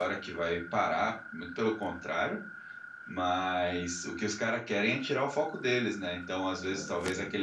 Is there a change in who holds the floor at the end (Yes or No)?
No